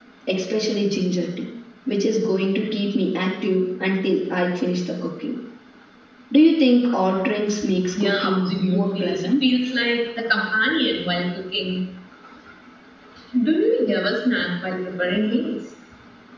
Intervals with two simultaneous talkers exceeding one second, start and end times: 8.0-9.4

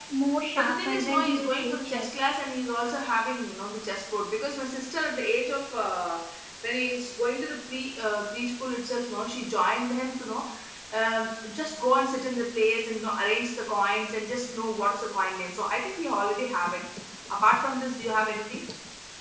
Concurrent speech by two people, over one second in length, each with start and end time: 0.6-2.1

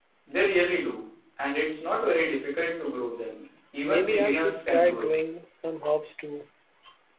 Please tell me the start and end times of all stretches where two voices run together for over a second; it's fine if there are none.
3.8-5.1

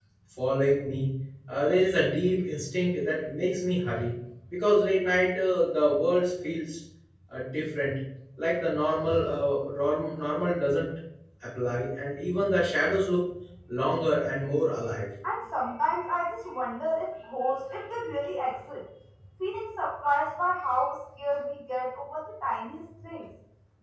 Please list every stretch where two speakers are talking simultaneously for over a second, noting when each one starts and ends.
none

